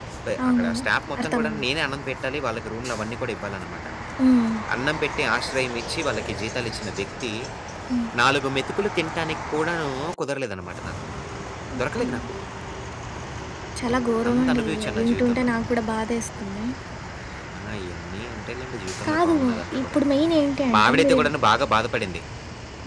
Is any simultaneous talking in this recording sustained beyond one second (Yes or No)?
Yes